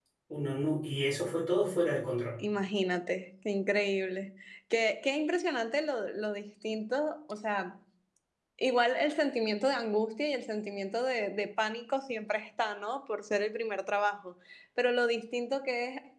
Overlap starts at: none

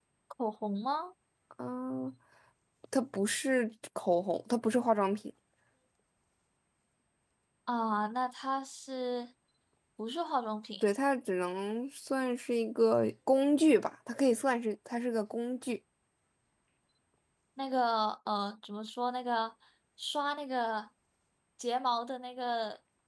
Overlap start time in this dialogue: none

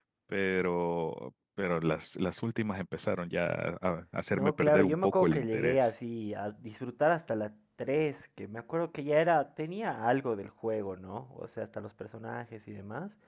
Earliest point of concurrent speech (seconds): 4.3 s

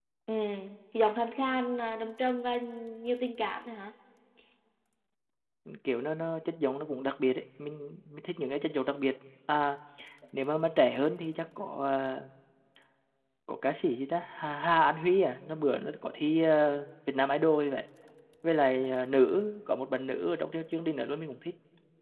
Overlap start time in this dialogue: none

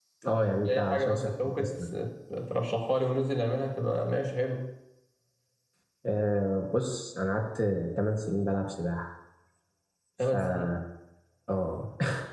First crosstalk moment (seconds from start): 0.7 s

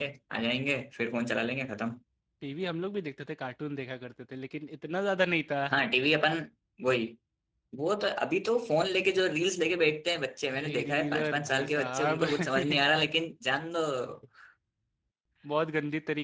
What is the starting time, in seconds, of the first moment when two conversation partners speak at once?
10.4 s

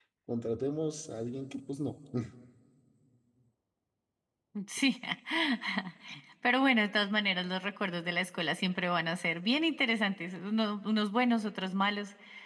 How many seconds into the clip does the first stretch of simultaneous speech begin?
none

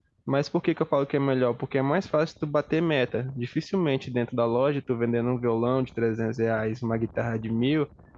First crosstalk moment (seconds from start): none

